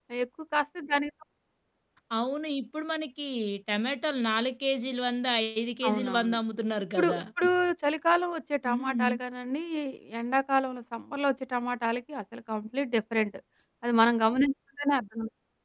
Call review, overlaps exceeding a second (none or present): none